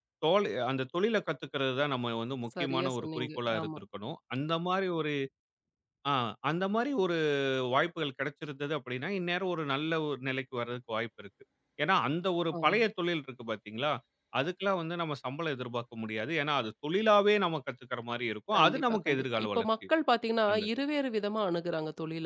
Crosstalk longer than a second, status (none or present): present